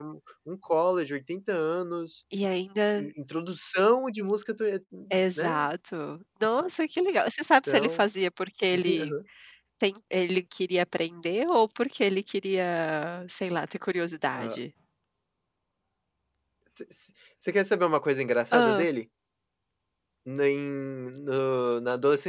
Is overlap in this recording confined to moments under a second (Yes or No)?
Yes